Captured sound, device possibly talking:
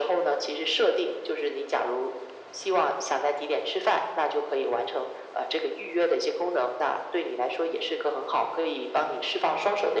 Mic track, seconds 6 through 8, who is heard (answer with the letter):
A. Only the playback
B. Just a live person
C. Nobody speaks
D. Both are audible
A